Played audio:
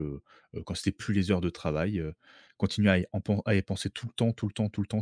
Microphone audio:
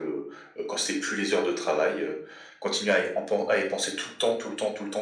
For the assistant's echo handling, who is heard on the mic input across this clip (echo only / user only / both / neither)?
echo only